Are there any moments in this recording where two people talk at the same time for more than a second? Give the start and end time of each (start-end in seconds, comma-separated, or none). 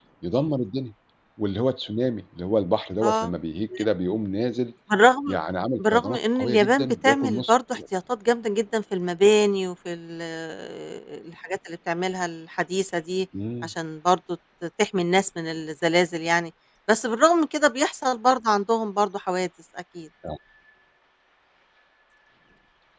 5.9-7.8